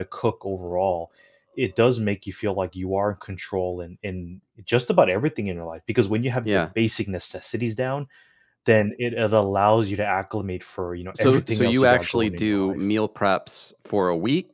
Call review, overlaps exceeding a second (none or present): present